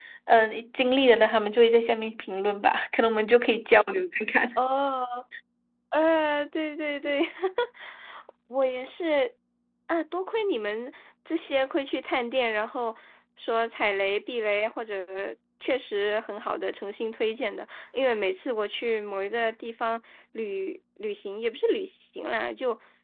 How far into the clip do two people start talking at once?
none

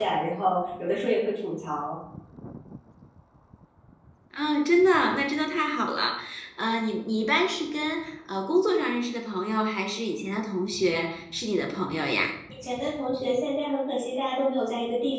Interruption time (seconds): none

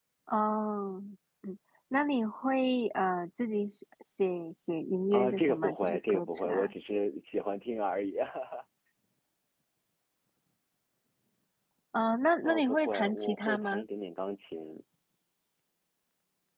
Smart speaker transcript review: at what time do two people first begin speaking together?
5.1 s

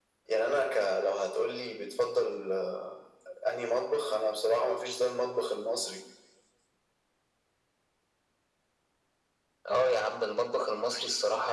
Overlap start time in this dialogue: none

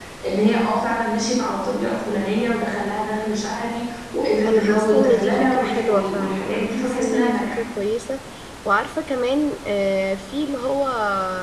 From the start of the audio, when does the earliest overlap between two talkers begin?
4.5 s

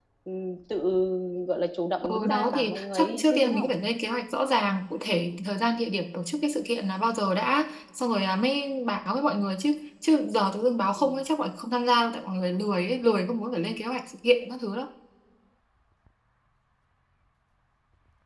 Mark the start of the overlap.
2.1 s

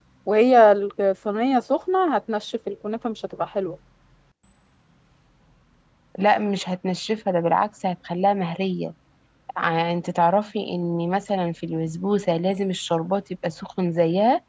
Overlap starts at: none

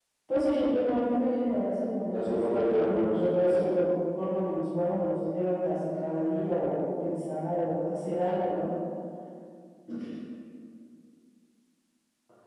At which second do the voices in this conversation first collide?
2.1 s

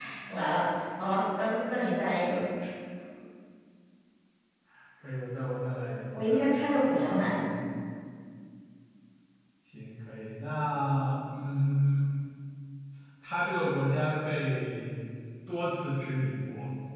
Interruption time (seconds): 6.1 s

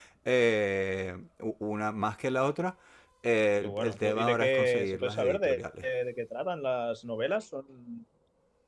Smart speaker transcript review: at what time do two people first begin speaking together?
3.6 s

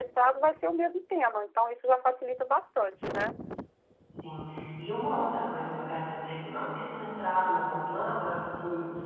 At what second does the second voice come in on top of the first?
none

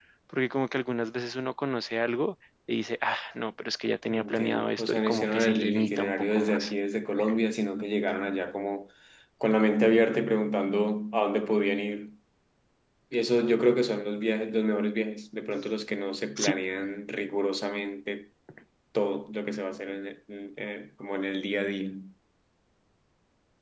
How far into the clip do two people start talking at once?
4.1 s

